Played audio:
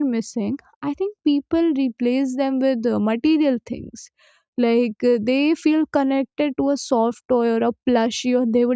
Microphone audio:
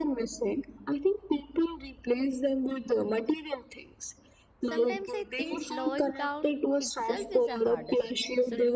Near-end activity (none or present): present